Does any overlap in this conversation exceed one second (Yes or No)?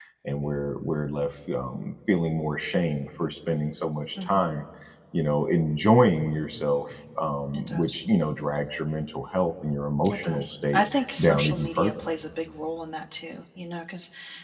Yes